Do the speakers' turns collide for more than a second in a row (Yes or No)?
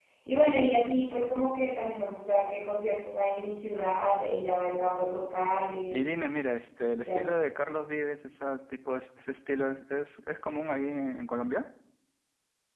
No